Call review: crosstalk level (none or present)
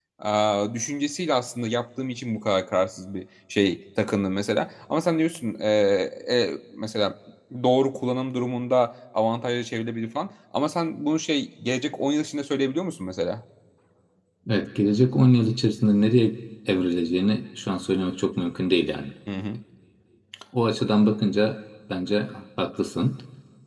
none